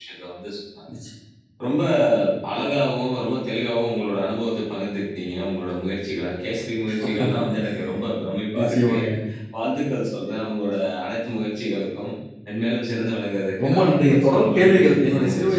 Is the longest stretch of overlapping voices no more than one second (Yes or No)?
No